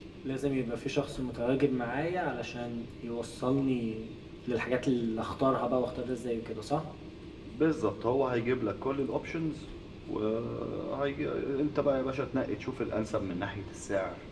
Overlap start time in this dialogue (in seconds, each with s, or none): none